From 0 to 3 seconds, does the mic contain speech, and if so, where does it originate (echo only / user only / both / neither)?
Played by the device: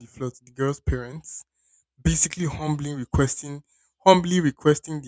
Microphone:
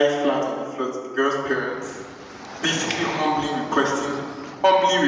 echo only